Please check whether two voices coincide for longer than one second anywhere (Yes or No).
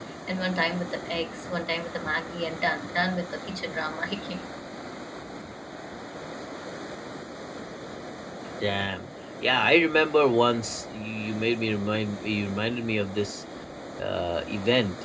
No